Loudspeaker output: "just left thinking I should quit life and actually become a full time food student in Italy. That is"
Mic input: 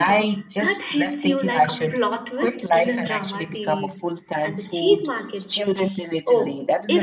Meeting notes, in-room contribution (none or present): present